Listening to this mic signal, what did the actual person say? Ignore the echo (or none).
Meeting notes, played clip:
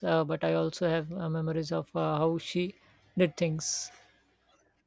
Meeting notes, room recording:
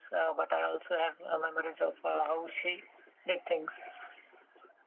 none